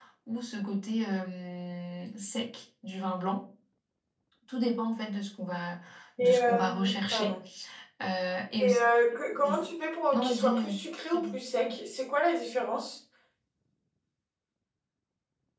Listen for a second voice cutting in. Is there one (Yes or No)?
Yes